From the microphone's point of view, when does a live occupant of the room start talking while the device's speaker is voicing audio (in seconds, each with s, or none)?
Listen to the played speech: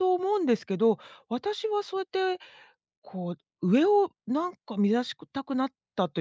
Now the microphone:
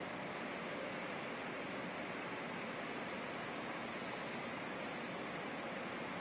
none